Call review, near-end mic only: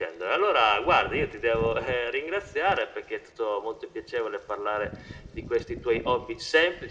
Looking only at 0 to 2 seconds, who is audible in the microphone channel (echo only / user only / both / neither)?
echo only